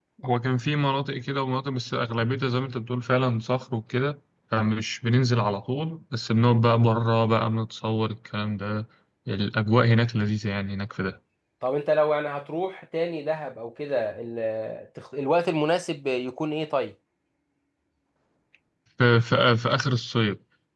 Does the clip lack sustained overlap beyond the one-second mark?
Yes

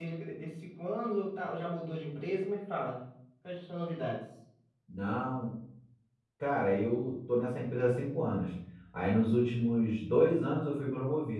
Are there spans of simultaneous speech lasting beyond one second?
No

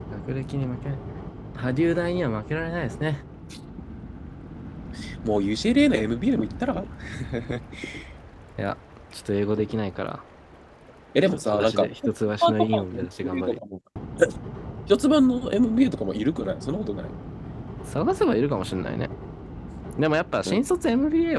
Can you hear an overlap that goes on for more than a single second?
Yes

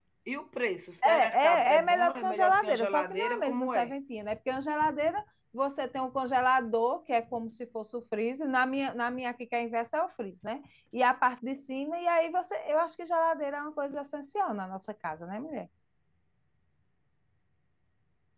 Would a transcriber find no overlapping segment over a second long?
No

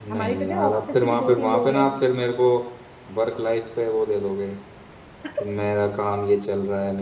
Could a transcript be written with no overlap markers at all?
No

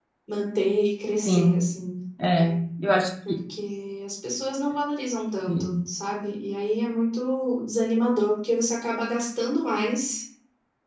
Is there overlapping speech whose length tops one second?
No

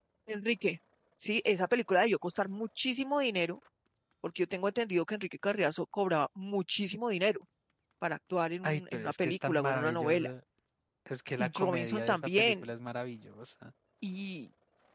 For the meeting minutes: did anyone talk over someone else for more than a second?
Yes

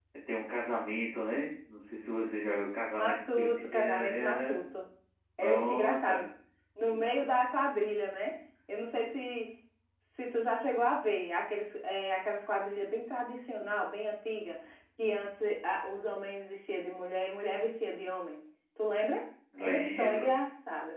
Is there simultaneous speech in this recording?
Yes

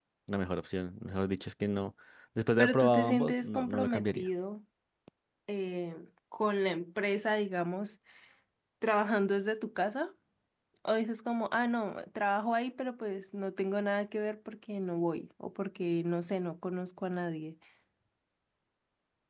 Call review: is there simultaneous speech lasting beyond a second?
Yes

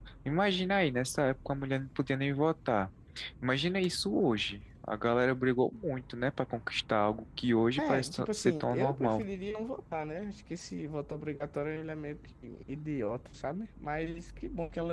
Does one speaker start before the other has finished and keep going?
Yes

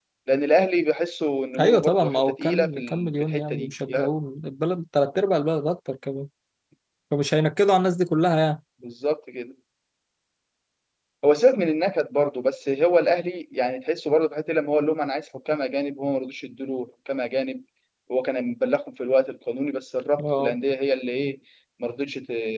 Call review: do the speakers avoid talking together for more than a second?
No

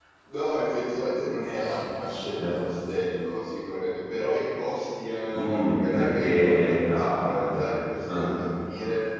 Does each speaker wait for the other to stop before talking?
No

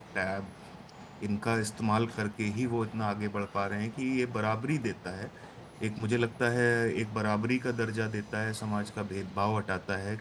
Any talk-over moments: No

